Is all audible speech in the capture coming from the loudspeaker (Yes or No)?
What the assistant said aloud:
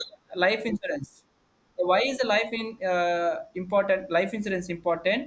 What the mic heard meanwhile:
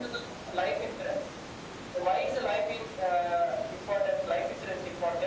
Yes